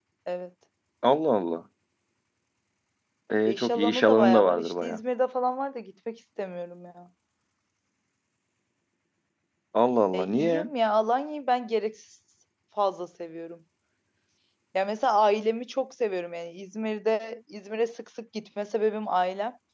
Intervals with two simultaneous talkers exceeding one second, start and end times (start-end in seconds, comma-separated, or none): 3.5-5.0